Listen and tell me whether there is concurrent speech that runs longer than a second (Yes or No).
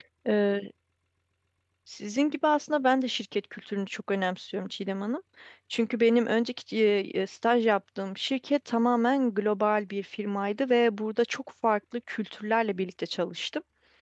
No